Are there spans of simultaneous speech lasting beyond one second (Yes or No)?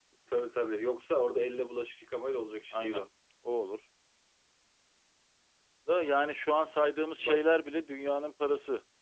No